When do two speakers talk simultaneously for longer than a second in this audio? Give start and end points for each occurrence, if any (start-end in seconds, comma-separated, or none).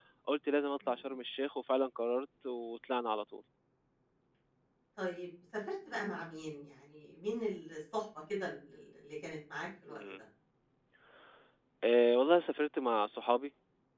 none